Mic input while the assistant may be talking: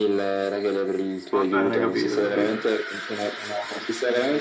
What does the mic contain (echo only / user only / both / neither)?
both